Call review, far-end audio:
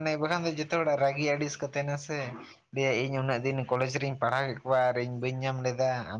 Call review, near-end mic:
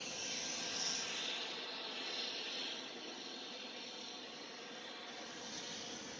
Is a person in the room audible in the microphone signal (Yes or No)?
No